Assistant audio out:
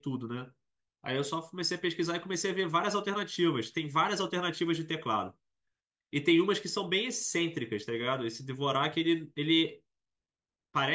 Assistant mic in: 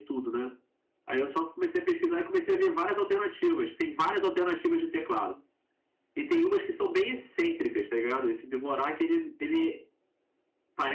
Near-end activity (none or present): none